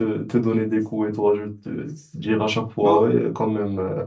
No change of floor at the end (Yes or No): Yes